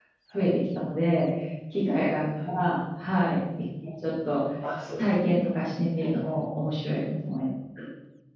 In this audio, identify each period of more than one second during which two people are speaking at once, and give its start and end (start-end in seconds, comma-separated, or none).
none